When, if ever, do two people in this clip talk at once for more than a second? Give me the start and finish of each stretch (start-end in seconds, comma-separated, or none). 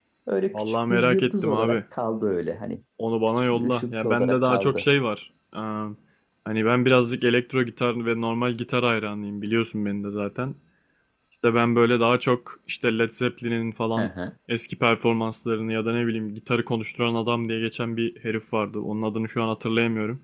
0.5-1.8, 3.5-4.8